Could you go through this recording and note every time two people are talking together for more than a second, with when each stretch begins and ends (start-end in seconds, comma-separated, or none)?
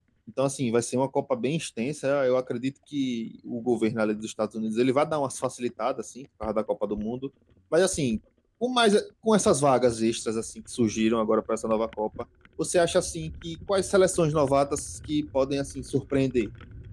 none